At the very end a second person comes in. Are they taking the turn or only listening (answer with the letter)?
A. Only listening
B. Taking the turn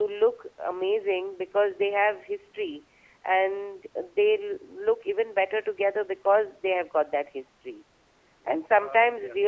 A